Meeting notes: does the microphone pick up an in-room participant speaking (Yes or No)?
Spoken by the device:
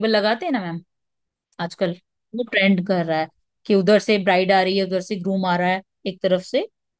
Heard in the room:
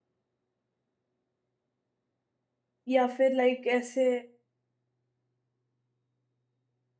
Yes